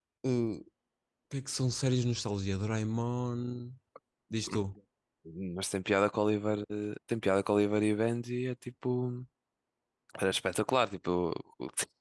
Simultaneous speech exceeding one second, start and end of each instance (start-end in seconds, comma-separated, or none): none